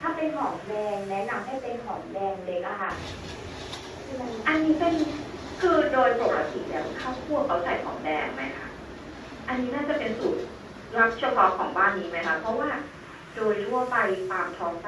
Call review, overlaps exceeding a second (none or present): none